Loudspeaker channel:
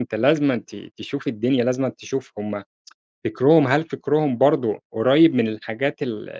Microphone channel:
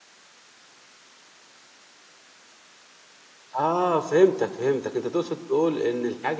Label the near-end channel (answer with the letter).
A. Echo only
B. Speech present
B